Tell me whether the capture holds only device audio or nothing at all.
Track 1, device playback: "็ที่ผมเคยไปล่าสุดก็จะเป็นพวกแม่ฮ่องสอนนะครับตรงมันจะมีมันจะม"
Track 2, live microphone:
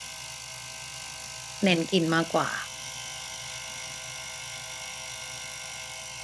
No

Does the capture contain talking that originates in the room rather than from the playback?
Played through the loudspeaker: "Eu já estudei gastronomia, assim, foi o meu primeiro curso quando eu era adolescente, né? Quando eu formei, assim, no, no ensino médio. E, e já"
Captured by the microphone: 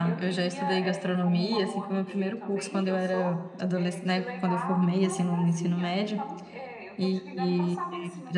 Yes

